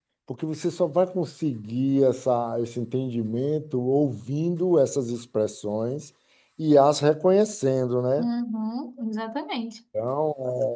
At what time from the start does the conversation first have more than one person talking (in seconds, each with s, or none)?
none